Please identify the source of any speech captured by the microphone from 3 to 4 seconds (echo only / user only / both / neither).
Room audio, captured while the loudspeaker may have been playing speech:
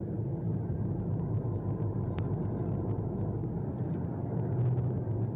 neither